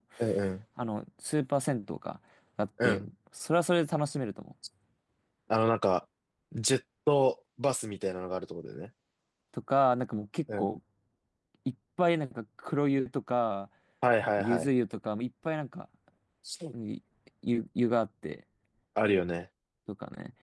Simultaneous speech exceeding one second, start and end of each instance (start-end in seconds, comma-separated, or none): none